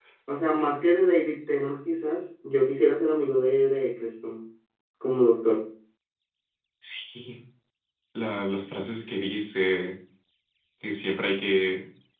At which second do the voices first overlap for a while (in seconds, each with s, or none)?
none